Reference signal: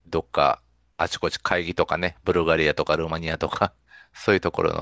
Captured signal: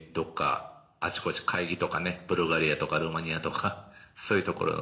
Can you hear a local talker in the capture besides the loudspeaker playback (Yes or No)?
No